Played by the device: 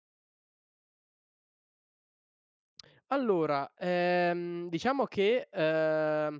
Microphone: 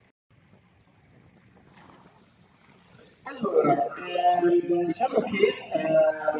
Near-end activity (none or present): none